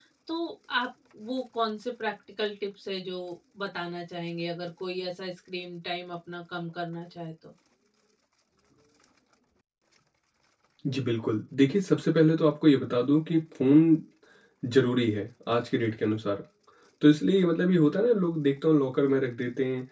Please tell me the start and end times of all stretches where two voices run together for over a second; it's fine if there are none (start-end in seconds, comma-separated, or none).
none